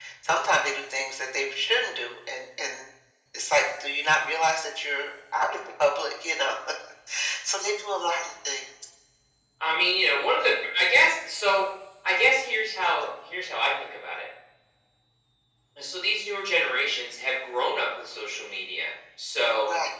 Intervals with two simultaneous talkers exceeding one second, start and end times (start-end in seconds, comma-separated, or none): none